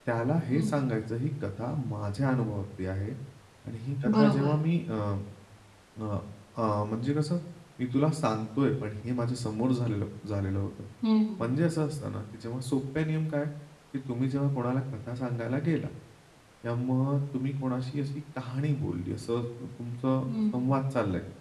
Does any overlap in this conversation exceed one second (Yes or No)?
No